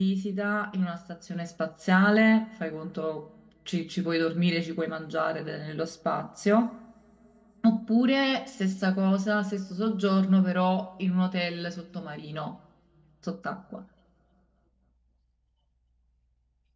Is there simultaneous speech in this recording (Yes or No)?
No